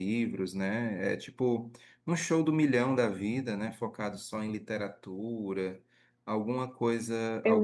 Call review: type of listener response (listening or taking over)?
listening